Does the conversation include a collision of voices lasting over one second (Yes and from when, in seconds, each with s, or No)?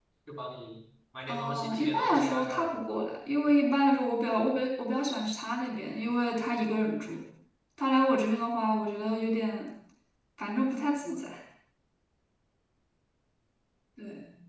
Yes, from 1.3 s